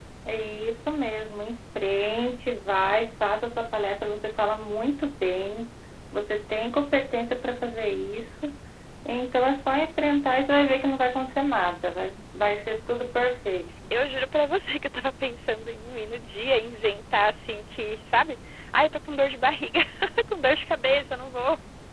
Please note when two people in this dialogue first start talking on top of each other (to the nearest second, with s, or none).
none